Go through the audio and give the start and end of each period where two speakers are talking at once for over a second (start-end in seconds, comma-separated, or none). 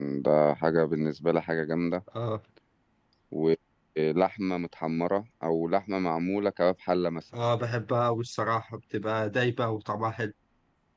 none